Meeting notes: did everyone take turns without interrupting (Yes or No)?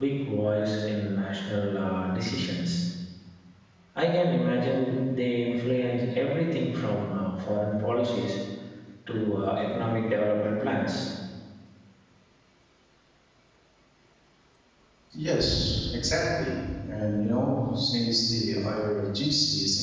Yes